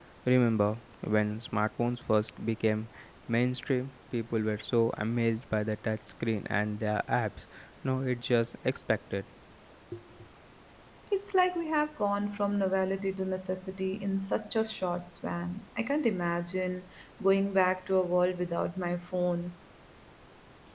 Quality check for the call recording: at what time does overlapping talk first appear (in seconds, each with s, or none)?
none